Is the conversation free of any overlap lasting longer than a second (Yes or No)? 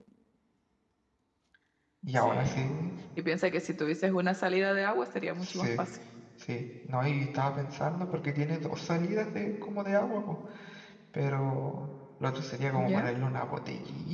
Yes